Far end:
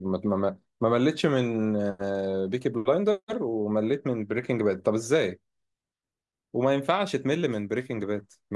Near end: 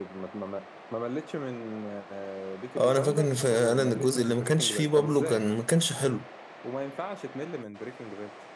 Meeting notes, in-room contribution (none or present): present